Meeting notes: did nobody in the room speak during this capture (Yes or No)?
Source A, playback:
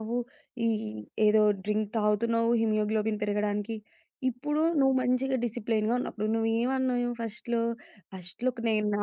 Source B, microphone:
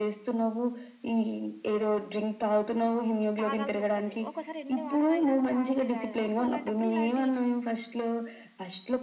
No